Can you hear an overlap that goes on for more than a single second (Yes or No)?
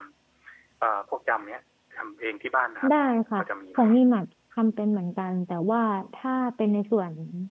No